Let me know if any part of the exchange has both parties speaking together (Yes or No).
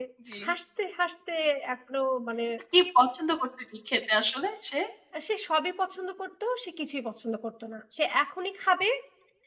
No